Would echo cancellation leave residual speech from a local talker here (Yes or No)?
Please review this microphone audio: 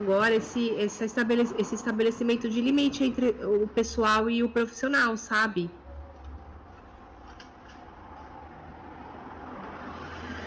Yes